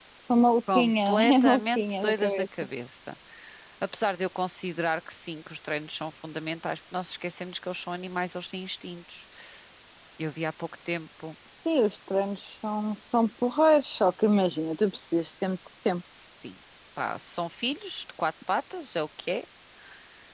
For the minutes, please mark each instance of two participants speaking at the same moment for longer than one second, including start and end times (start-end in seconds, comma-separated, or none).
0.7-2.5